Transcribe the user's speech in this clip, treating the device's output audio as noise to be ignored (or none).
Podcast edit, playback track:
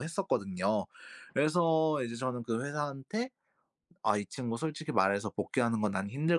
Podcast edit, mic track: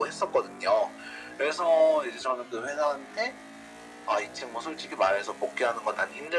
none